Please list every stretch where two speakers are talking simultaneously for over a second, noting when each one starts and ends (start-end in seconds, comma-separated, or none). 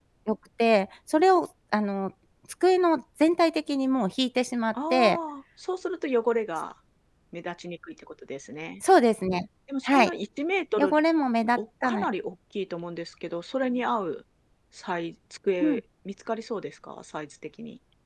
none